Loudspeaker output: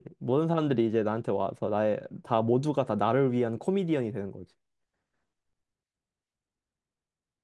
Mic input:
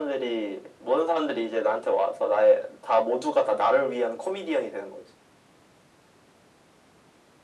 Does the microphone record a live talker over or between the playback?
No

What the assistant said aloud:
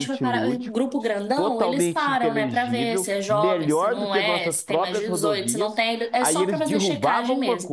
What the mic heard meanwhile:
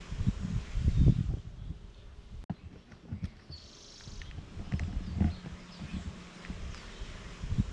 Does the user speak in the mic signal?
No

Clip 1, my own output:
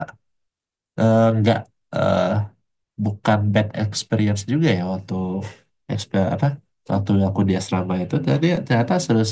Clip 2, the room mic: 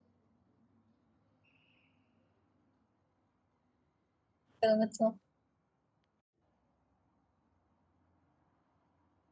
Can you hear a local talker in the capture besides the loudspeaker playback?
Yes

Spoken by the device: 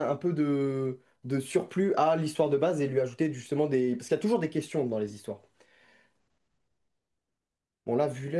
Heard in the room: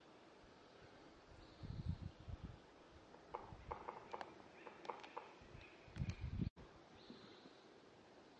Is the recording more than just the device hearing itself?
No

